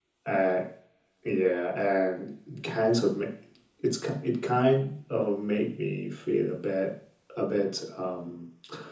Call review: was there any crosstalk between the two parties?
No

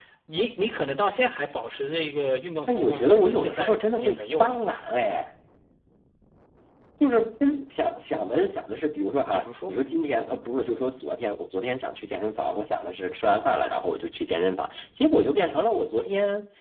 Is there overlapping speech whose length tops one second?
Yes, from 2.7 s

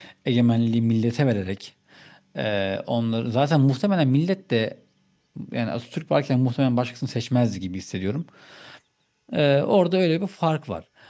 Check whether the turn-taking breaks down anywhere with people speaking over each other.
No

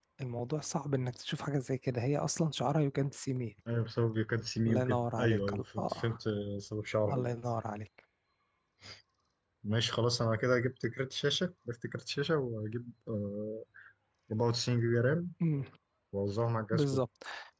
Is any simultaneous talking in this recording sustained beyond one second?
Yes, from 4.7 s

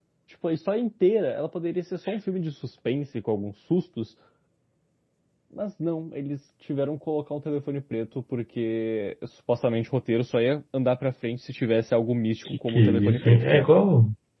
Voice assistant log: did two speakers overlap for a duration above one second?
Yes, from 12.4 s

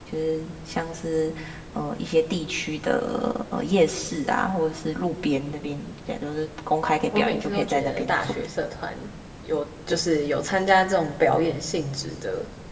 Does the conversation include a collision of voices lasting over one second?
Yes, from 7.1 s

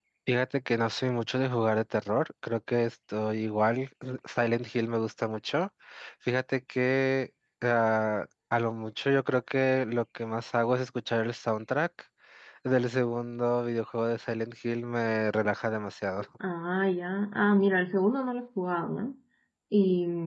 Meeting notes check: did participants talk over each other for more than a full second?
No

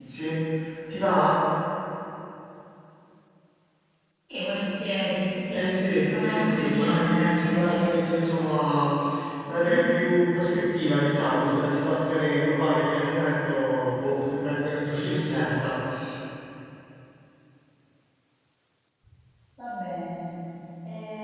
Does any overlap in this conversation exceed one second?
Yes, from 5.5 s

